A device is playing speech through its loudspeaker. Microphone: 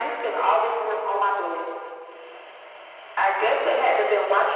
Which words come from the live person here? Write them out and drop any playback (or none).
none